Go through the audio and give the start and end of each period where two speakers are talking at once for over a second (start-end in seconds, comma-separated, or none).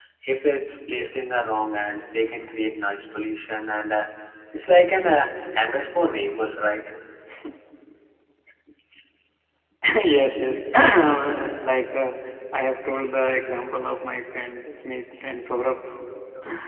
none